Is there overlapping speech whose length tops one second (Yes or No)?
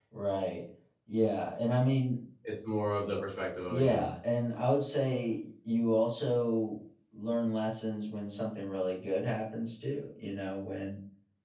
No